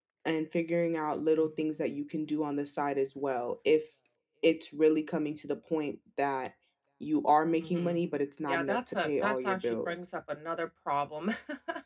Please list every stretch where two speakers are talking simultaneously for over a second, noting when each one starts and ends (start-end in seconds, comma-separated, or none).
8.5-10.1